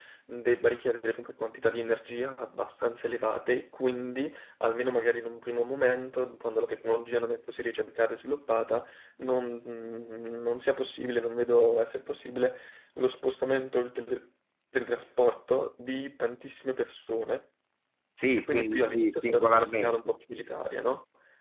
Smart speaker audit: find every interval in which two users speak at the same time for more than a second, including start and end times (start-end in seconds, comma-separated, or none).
18.5-20.1